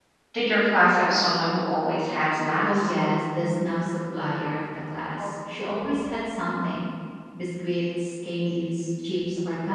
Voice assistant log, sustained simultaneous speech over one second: none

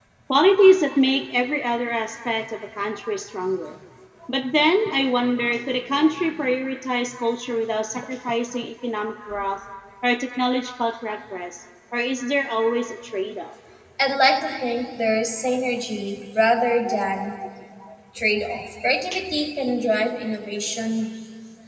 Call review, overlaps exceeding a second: none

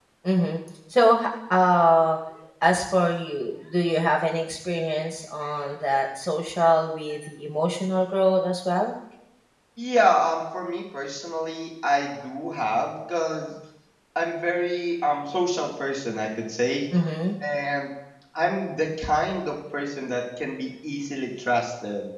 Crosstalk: none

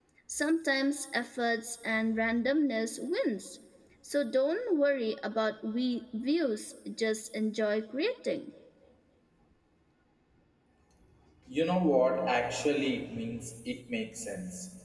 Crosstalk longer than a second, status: none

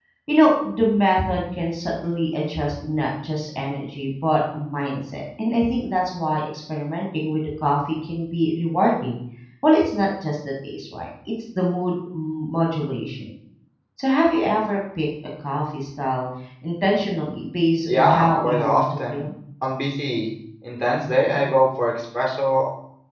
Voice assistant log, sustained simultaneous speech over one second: present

